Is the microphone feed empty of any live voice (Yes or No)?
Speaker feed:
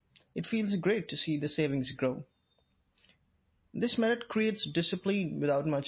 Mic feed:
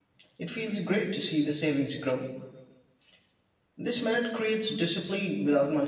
Yes